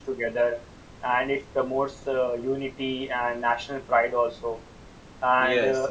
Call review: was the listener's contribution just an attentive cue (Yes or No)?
Yes